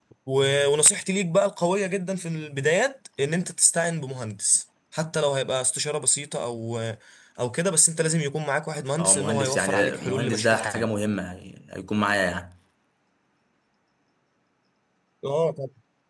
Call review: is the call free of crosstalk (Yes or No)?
No